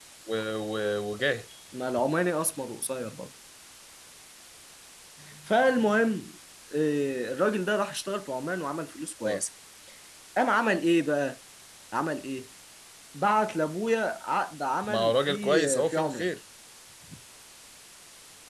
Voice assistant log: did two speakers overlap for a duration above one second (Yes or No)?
Yes